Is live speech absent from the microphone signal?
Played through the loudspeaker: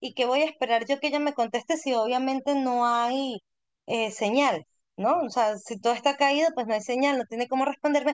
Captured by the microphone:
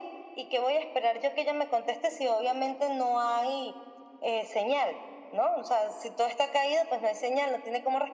Yes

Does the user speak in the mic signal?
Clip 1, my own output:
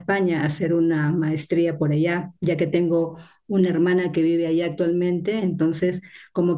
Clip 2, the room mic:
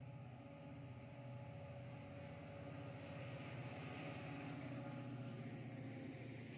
No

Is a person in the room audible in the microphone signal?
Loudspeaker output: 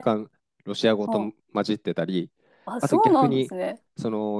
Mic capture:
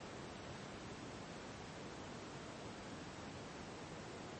No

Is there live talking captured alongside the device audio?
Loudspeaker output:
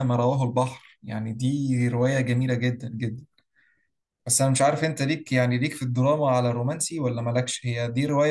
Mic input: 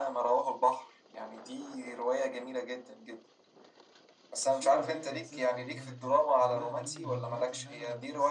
Yes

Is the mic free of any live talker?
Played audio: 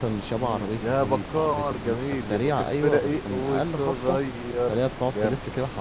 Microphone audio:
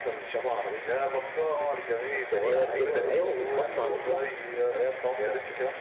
No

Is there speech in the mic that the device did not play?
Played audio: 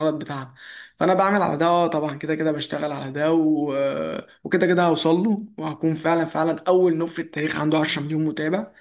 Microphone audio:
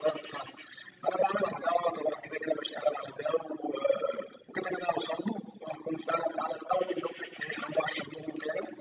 No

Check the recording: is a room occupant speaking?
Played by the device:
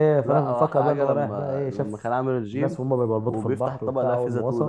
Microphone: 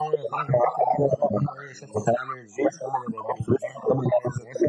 No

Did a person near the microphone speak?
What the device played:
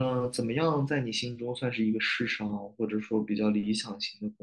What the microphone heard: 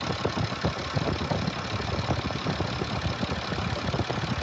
No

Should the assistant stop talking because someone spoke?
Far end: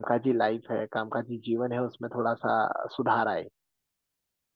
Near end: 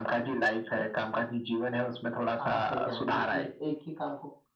Yes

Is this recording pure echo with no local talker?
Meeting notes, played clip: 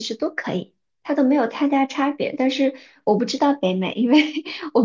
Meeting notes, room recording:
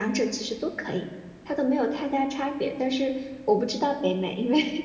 Yes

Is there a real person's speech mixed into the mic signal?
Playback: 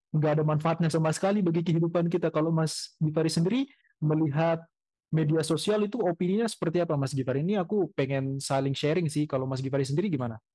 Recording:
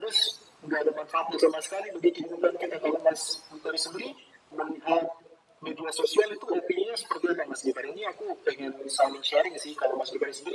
No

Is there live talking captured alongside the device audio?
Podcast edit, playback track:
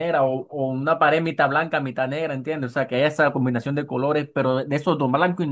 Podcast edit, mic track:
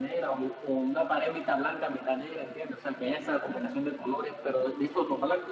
No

